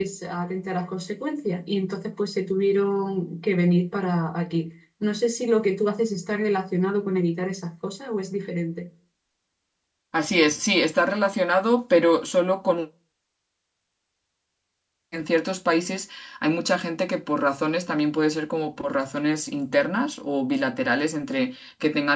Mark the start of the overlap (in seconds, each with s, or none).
none